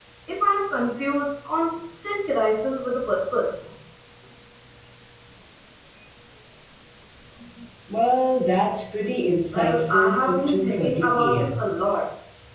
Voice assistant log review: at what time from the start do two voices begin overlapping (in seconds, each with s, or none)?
9.5 s